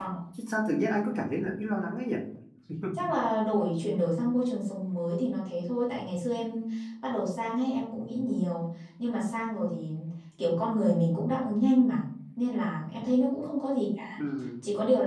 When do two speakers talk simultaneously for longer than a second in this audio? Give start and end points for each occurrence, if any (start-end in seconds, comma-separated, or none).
none